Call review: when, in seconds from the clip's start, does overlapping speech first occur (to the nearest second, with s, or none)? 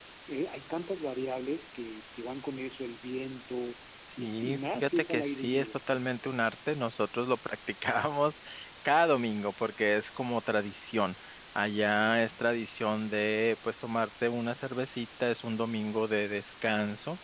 4 s